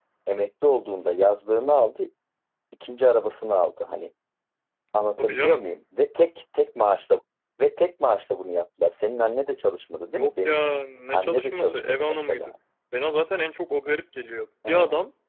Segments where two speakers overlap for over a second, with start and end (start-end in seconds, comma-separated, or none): 11.1-12.5